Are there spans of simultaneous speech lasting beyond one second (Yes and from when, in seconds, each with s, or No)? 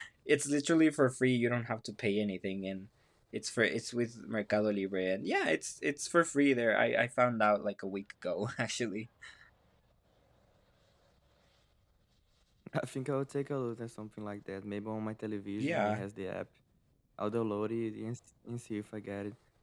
No